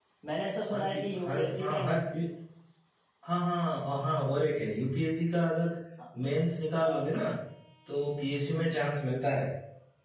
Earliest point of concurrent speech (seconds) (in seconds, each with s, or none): 0.7 s